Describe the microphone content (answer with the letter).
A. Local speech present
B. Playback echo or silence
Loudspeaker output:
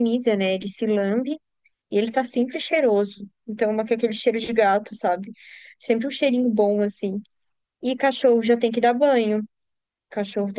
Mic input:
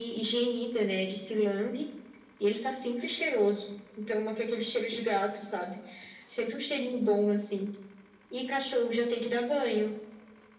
B